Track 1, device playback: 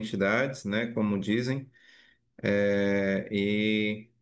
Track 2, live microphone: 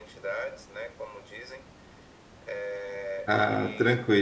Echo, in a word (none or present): present